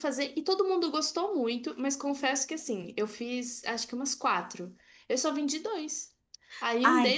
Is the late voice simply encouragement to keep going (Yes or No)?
Yes